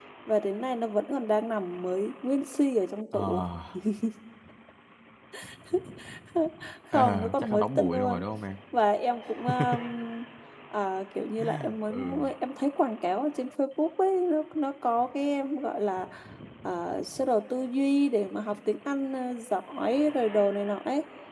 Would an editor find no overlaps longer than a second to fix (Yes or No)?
No